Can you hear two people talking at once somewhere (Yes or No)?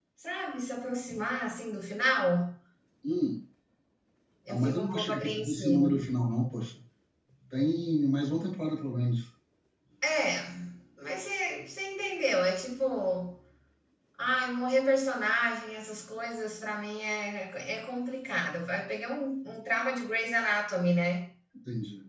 Yes